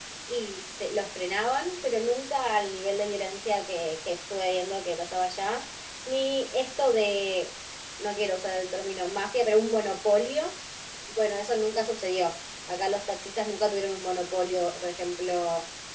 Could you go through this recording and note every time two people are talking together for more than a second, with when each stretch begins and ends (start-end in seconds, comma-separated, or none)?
none